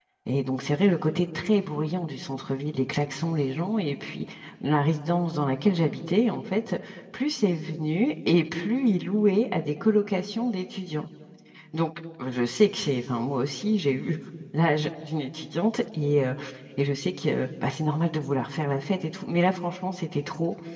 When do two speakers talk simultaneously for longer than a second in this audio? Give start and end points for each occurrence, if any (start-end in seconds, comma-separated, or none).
none